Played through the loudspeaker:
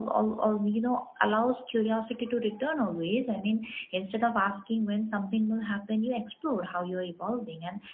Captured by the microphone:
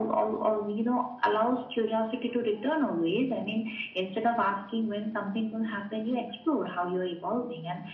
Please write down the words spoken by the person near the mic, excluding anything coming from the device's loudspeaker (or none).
none